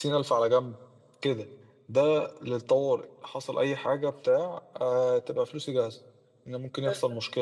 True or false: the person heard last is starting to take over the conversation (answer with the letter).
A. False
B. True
A